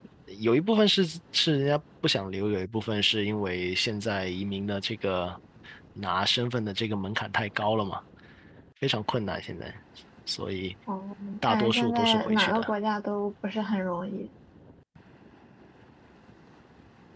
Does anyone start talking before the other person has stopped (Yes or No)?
Yes